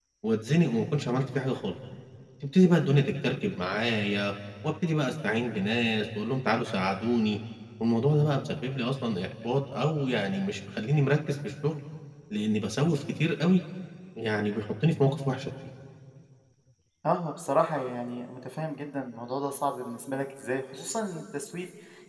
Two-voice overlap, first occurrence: none

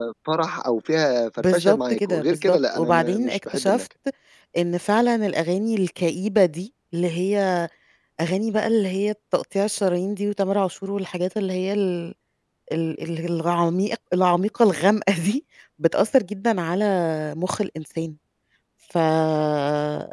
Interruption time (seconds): 1.4 s

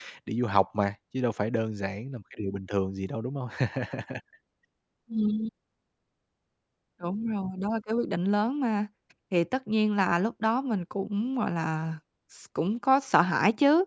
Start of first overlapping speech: none

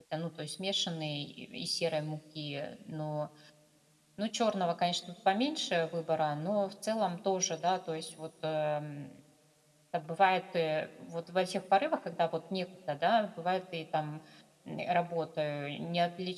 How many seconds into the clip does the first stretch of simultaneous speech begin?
none

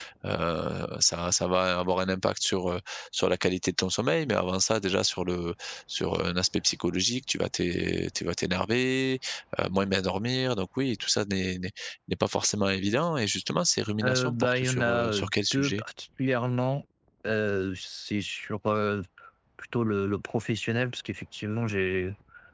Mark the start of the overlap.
14.0 s

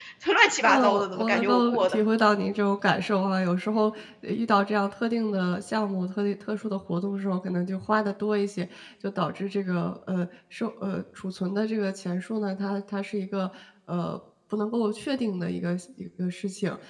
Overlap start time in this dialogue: 0.6 s

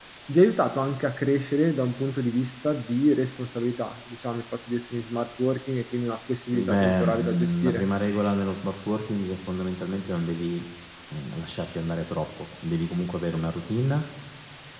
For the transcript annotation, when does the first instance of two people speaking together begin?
6.5 s

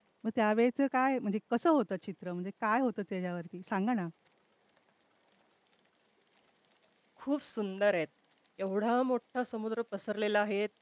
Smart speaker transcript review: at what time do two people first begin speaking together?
none

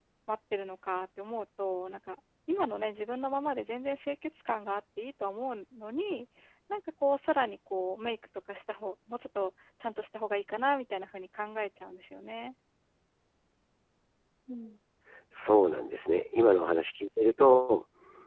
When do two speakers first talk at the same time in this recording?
none

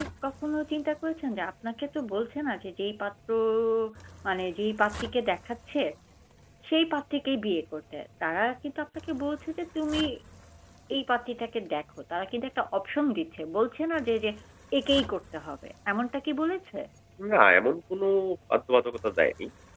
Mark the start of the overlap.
none

